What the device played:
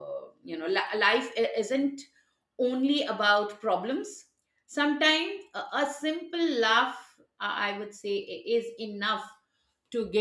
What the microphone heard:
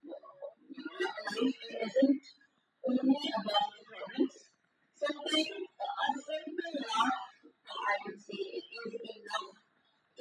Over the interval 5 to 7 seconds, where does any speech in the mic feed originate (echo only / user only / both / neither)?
echo only